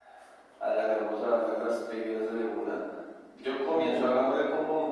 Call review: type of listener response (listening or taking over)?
listening